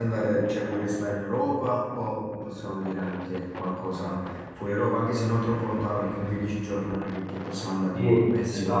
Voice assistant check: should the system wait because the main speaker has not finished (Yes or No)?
No